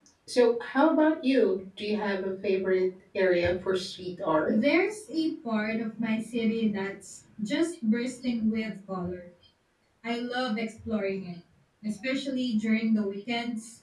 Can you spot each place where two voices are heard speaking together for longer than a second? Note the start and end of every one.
none

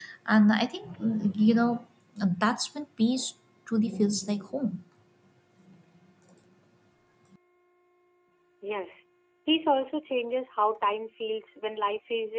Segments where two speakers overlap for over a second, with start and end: none

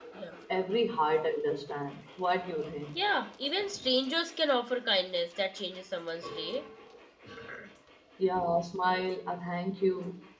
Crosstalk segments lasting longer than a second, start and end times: none

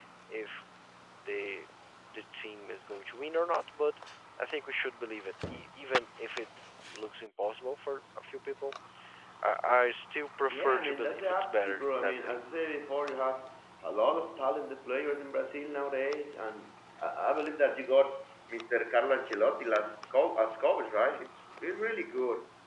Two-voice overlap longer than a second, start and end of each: 10.5-12.3

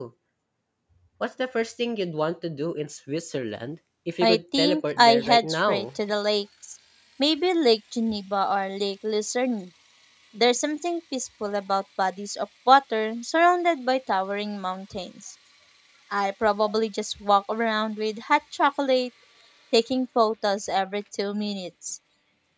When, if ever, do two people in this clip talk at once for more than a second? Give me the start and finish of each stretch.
4.2-5.8

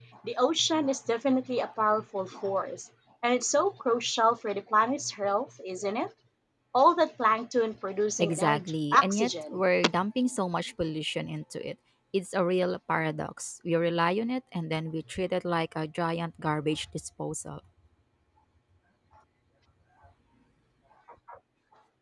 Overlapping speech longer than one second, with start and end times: 8.2-9.6

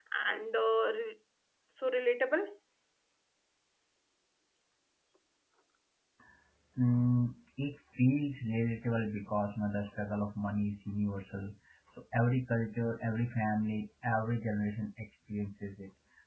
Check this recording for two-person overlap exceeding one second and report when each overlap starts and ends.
none

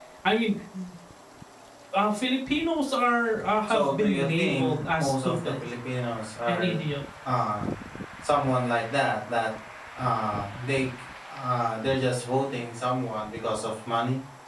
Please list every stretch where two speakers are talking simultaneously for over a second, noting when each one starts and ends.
3.7-5.7

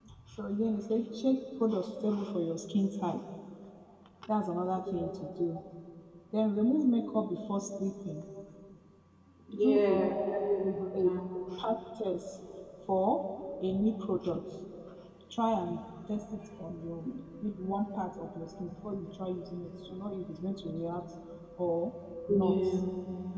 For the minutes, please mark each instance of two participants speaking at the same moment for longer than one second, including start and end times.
9.6-11.1

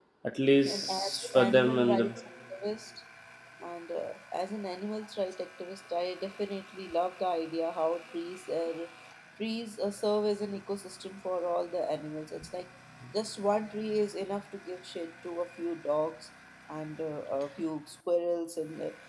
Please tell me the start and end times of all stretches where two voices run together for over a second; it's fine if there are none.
0.6-2.1

